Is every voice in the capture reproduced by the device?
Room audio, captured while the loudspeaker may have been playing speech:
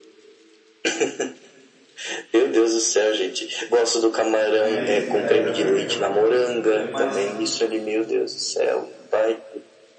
No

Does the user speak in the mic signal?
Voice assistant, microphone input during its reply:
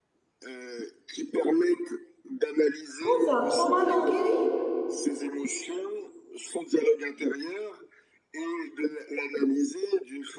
Yes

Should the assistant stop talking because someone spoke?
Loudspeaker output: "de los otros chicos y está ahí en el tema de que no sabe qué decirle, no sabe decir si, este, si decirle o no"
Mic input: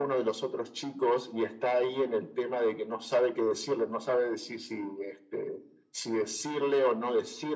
No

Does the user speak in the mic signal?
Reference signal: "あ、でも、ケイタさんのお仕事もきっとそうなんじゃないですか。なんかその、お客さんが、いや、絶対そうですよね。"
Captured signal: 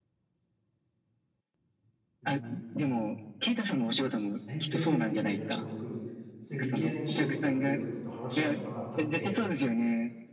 Yes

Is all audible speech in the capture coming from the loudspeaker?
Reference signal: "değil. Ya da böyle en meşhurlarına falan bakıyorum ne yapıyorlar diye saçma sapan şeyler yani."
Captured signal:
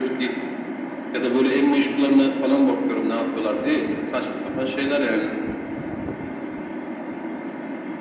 Yes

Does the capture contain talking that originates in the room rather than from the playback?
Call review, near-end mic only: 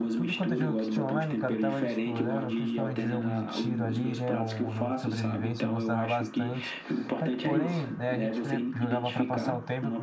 Yes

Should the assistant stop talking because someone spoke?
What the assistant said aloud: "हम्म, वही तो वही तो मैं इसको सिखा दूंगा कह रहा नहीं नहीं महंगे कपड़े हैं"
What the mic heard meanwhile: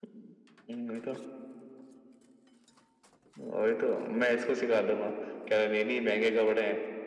No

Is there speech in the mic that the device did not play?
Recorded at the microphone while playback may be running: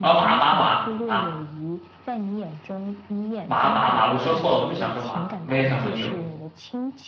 Yes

